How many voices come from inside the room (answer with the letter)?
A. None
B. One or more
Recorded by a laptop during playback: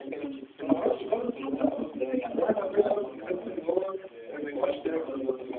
B